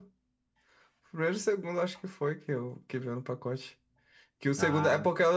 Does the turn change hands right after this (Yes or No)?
No